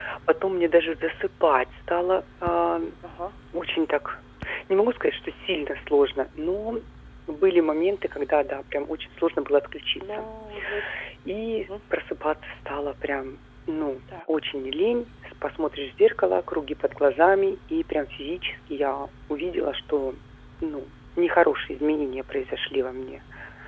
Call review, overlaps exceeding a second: none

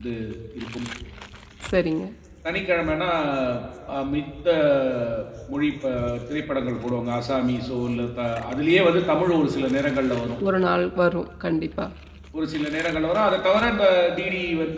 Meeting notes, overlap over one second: none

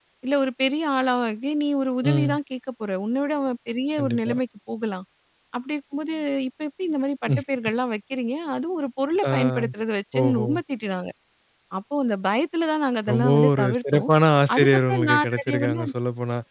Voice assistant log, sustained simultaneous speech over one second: present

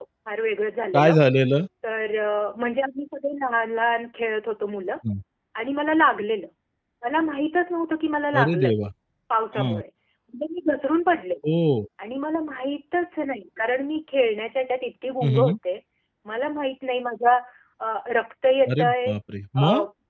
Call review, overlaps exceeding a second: none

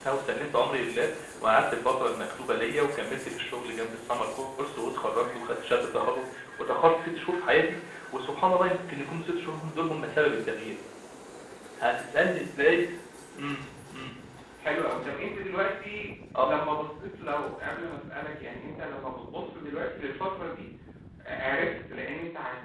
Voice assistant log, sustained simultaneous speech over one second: none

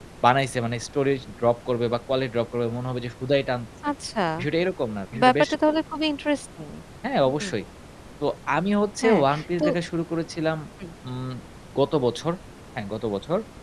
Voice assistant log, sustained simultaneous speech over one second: none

